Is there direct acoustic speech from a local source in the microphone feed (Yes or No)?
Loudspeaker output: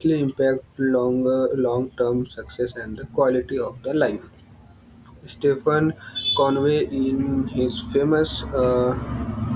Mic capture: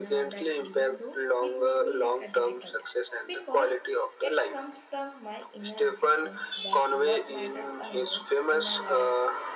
Yes